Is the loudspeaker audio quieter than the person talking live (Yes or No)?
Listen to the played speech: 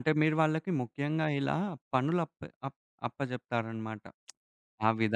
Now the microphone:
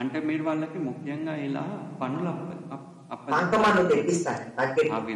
Yes